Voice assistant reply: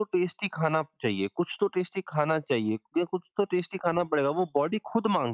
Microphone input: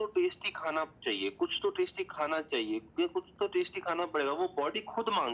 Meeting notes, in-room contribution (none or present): none